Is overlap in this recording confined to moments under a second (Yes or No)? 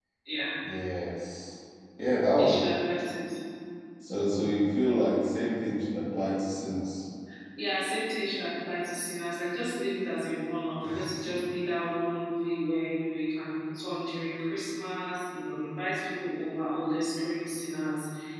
Yes